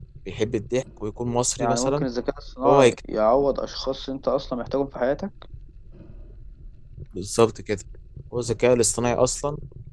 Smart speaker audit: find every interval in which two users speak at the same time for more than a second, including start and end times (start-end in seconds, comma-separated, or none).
none